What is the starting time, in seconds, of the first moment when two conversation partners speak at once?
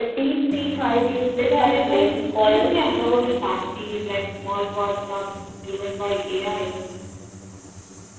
1.4 s

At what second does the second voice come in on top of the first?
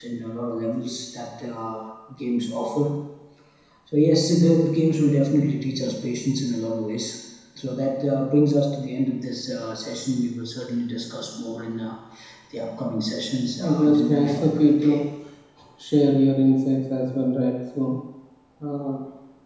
13.6 s

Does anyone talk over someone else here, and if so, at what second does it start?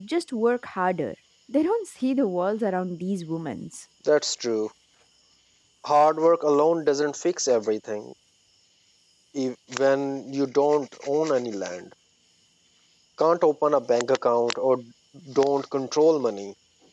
none

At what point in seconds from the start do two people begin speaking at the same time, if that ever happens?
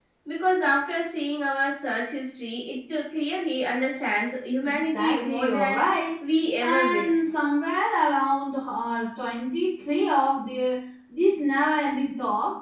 4.6 s

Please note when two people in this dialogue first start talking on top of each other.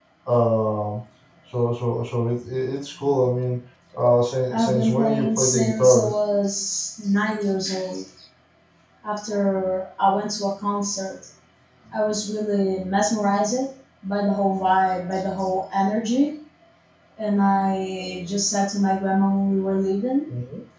4.5 s

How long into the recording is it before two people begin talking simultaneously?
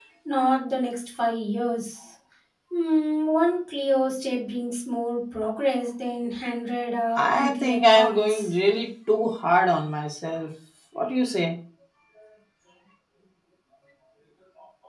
7.2 s

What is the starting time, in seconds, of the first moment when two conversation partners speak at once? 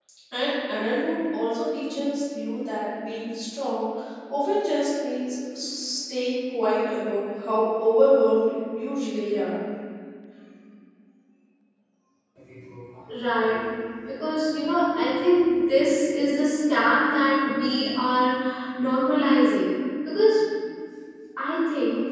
none

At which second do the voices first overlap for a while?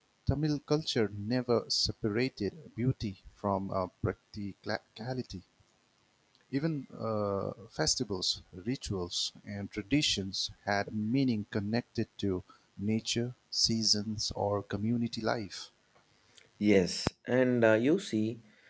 none

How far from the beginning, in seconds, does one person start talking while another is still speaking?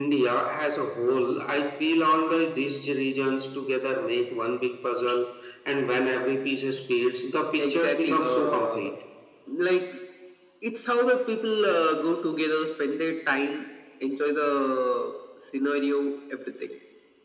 7.6 s

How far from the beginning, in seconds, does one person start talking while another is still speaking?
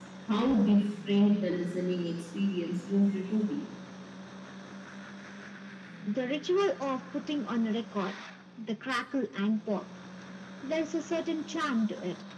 none

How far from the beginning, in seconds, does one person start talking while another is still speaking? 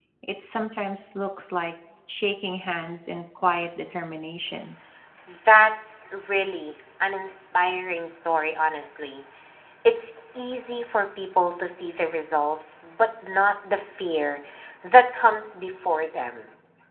none

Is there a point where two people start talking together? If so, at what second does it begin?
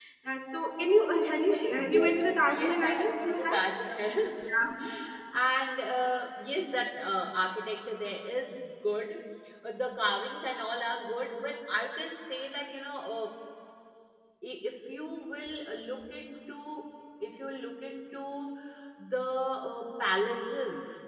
1.7 s

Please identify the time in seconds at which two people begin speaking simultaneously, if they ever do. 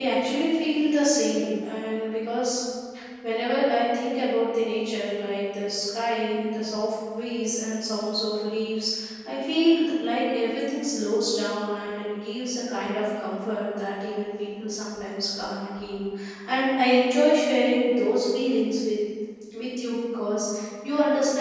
none

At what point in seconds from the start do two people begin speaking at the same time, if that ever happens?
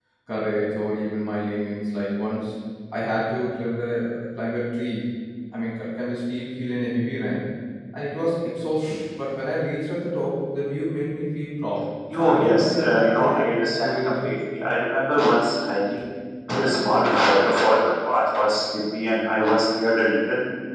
12.1 s

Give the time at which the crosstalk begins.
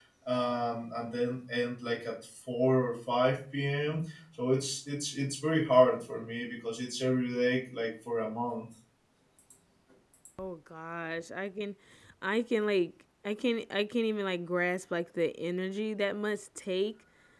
none

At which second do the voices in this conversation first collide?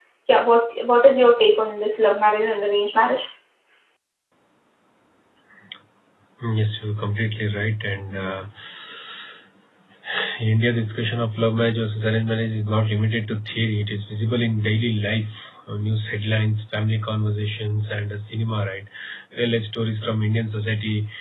none

